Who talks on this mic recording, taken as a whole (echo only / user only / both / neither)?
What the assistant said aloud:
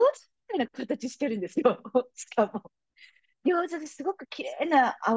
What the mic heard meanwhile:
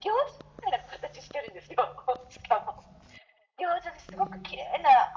both